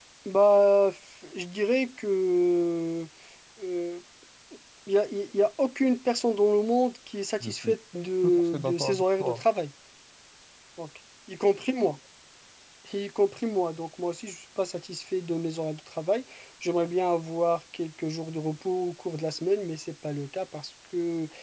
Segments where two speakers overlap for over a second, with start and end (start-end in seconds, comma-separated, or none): 8.2-9.4